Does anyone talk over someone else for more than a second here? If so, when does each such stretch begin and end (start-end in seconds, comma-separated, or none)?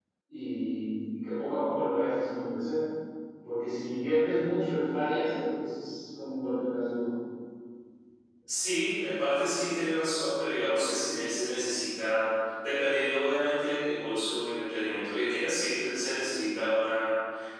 none